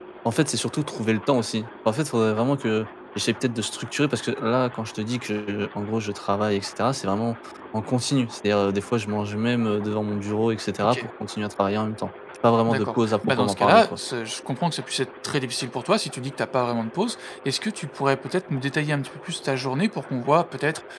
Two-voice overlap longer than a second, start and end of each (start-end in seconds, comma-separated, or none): 12.7-14.0